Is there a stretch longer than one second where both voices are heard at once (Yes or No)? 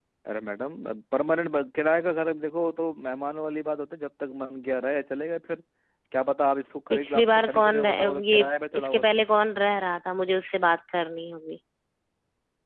Yes